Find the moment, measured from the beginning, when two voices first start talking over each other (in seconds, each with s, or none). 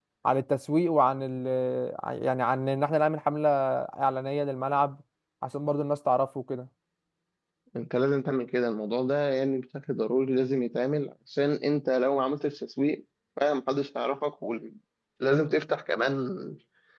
none